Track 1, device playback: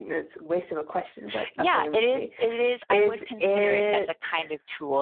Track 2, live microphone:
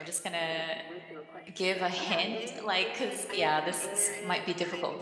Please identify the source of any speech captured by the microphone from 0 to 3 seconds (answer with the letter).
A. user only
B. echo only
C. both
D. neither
C